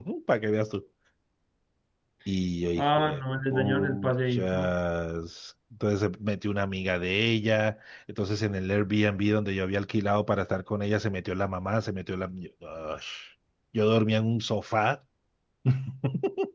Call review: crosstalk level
present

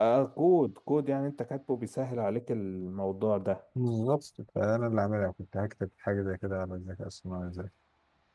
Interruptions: none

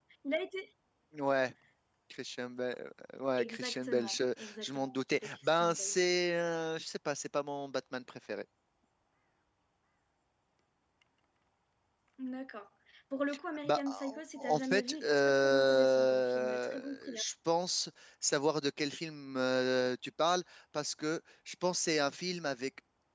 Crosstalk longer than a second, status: present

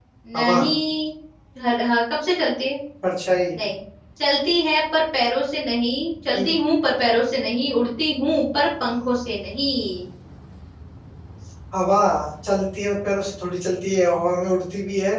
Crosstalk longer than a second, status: none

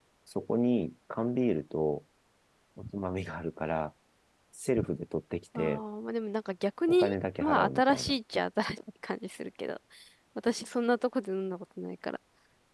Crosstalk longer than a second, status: present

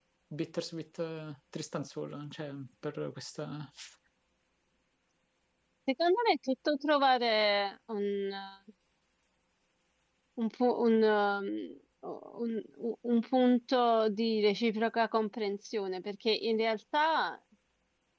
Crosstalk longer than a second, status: none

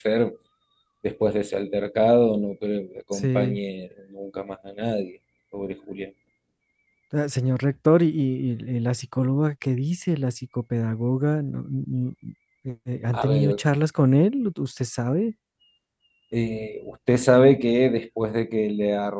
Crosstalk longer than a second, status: none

